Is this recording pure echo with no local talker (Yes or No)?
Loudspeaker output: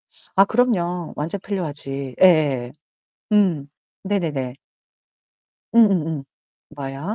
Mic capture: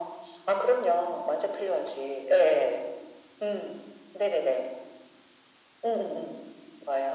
Yes